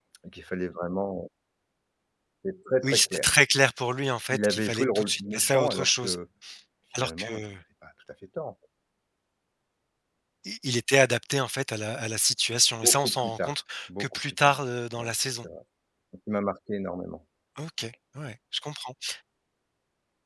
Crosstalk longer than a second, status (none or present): present